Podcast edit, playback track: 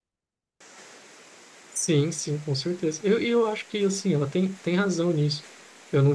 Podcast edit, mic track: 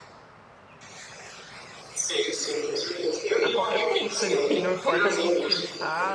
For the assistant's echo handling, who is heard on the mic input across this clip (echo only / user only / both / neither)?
both